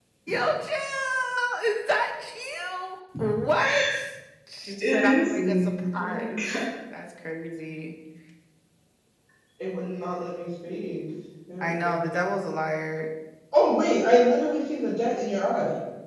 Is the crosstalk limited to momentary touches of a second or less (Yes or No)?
No